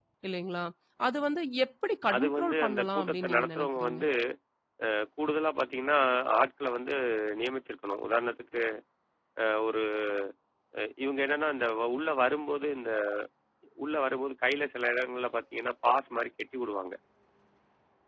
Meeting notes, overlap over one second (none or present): present